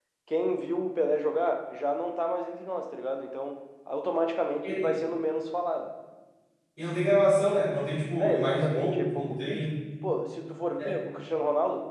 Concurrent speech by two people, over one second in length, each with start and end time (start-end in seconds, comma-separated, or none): 8.2-9.7